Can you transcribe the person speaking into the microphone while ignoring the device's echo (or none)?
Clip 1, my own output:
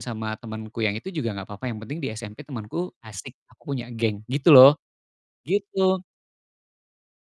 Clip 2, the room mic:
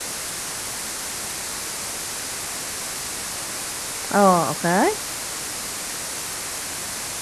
Oh, oke.